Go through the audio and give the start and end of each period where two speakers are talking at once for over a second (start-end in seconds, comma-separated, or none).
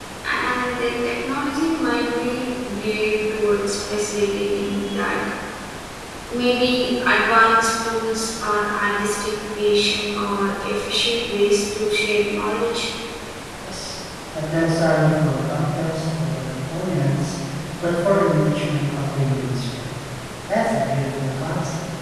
none